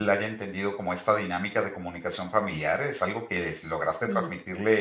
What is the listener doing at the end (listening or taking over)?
listening